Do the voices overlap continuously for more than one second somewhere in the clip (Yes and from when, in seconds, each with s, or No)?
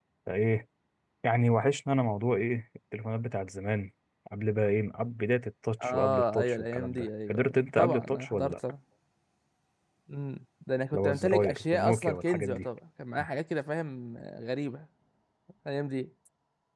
Yes, from 5.8 s